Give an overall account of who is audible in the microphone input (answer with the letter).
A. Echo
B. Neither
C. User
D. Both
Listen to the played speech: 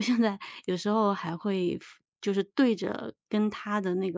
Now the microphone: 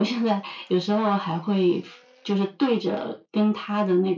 A